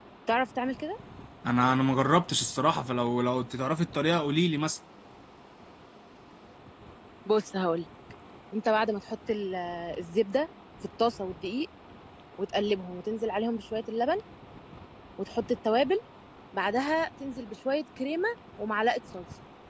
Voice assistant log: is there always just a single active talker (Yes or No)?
Yes